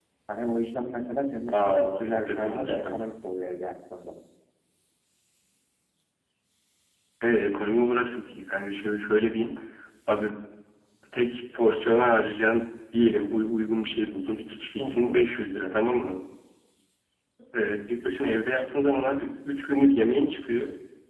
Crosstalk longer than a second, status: present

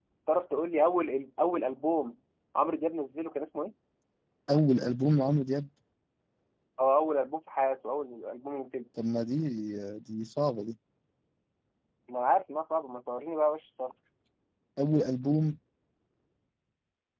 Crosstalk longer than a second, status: none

